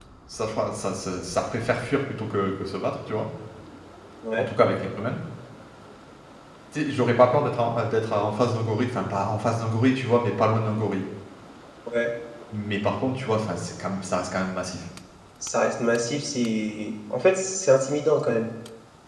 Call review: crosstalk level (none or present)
none